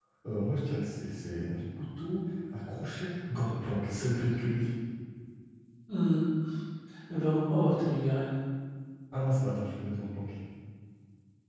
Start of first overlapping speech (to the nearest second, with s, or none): none